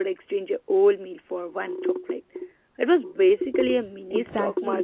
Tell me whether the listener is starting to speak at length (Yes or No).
Yes